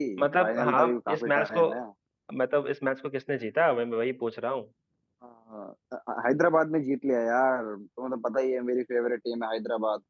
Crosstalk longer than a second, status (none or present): present